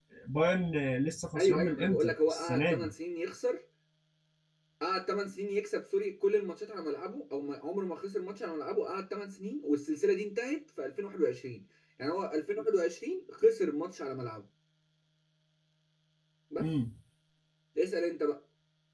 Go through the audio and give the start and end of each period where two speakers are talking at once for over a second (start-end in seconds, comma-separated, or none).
1.4-2.9